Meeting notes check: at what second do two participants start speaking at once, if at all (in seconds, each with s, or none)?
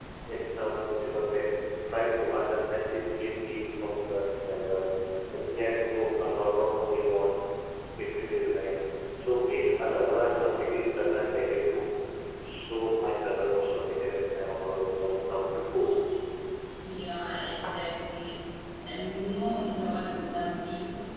none